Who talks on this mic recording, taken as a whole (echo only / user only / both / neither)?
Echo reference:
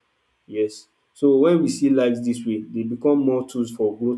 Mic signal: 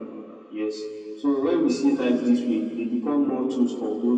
echo only